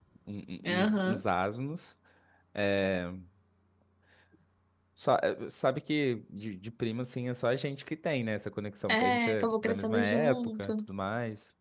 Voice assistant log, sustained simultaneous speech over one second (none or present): present